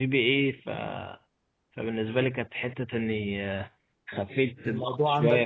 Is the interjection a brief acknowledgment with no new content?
Yes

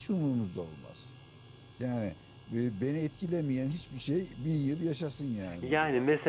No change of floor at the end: No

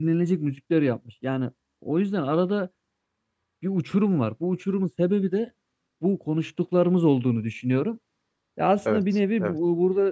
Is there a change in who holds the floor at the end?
No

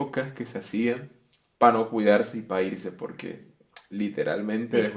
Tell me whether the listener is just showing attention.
Yes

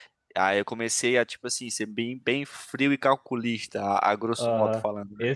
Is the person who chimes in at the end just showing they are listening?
No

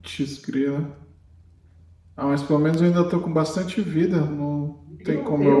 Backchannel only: No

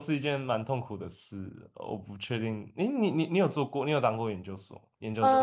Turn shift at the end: Yes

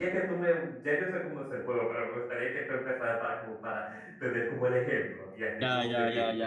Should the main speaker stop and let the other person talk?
Yes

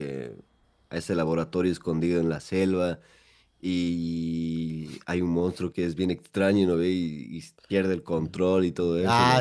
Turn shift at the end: Yes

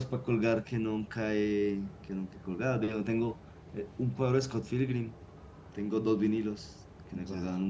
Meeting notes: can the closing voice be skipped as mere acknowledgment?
No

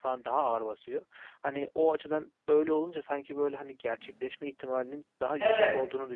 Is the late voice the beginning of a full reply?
No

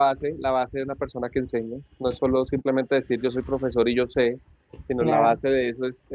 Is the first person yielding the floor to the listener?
No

